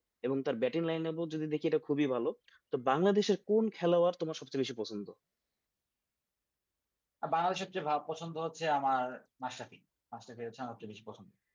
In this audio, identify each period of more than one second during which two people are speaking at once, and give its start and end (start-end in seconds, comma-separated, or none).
none